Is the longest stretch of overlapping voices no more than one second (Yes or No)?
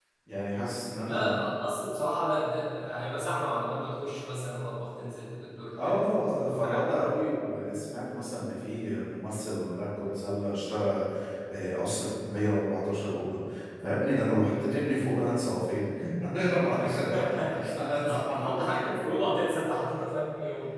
No